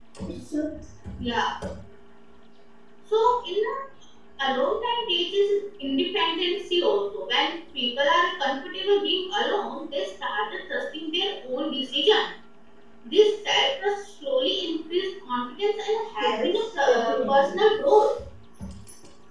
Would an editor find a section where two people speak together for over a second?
Yes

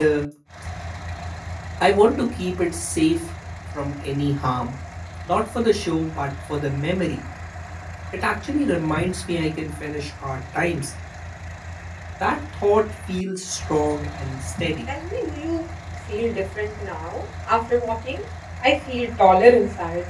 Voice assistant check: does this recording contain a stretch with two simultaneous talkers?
No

